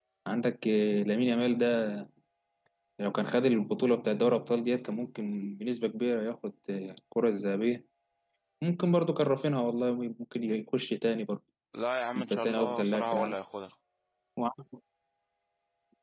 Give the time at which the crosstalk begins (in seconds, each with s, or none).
12.2 s